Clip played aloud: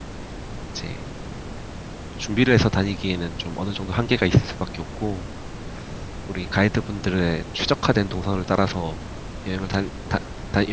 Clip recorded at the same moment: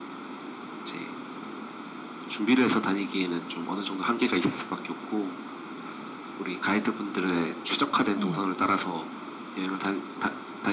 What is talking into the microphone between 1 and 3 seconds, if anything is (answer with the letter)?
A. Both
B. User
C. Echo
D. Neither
C